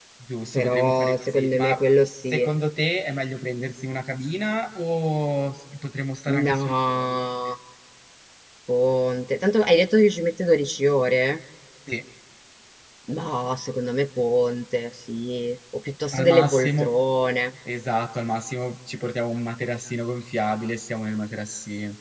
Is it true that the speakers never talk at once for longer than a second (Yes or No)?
No